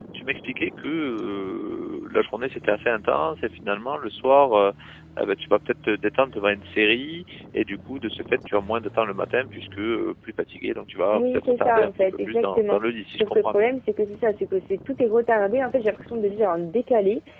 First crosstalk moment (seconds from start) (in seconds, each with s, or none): 11.1 s